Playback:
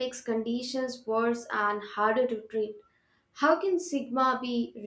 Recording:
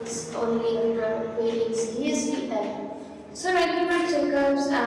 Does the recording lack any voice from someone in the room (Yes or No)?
No